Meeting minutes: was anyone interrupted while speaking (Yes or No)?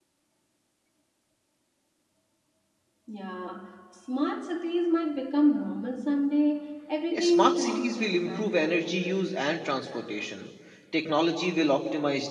Yes